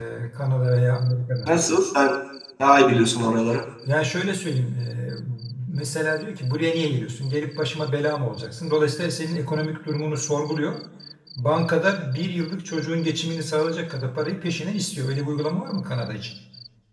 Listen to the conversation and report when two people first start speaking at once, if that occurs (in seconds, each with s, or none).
none